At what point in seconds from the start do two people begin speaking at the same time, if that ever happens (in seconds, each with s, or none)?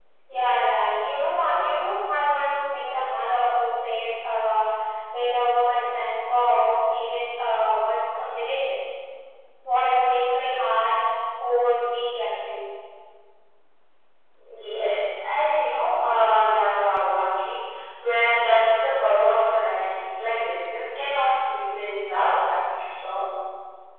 none